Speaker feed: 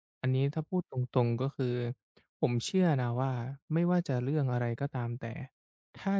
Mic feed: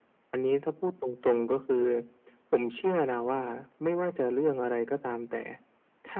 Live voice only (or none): none